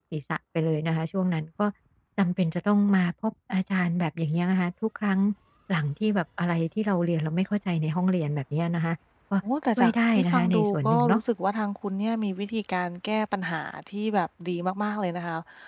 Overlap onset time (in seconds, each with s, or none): 9.8 s